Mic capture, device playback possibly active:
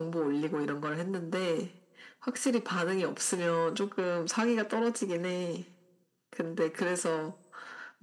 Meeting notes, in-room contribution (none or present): none